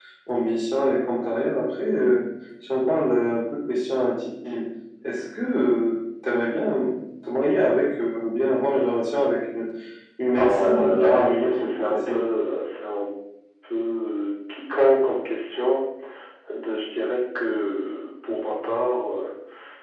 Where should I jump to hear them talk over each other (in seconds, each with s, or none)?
10.4 s